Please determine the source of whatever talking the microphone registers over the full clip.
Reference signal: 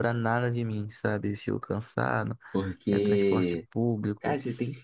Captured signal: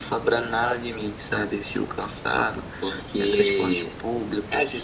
echo only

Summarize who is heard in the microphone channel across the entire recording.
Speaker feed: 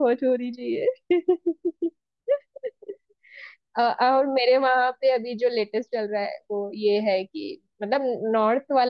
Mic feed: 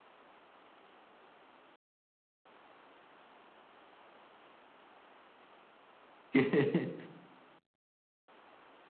user only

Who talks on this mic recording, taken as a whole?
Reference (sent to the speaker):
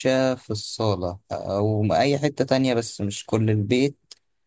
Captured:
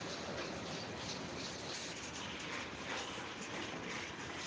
neither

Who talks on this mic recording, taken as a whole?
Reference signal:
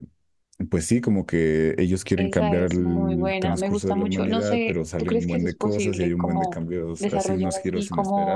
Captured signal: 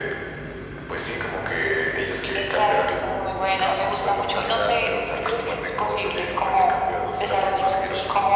echo only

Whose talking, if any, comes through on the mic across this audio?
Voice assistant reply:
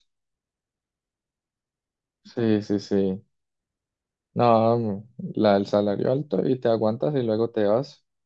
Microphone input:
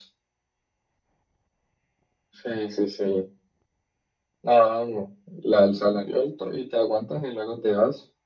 echo only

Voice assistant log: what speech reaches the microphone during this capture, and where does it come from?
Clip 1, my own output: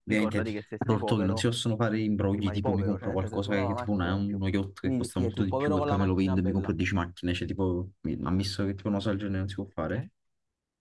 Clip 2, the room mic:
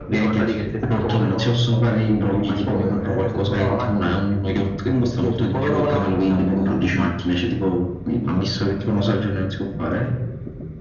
echo only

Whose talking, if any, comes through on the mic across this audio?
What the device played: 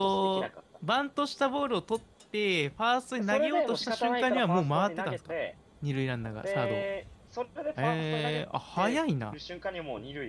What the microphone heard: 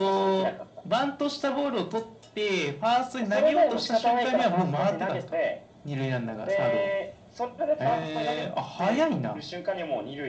echo only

